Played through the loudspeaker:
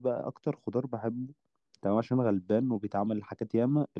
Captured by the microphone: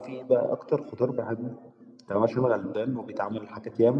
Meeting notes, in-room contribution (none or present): none